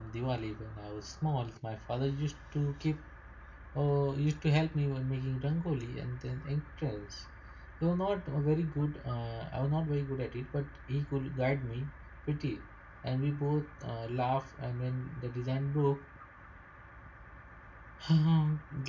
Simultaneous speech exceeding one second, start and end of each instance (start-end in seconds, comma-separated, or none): none